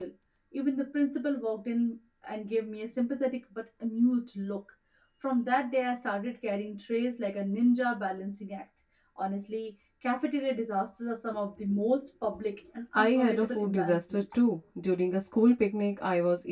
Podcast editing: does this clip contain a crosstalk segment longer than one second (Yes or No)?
Yes